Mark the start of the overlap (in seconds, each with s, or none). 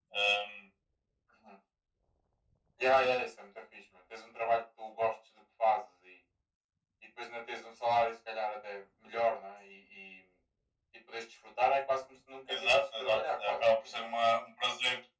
12.5 s